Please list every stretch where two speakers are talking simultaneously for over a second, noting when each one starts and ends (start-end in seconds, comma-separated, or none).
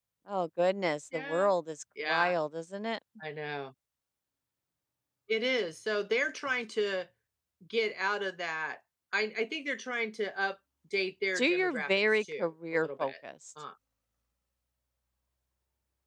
11.4-13.1